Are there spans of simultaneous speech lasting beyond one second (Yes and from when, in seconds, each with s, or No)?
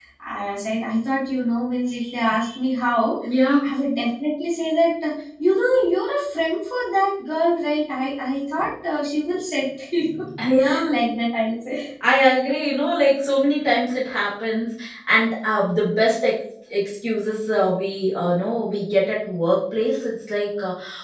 No